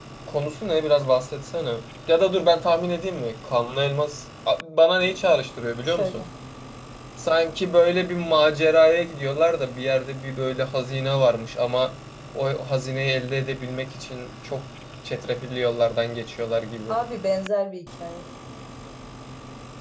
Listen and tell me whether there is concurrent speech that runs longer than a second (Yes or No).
No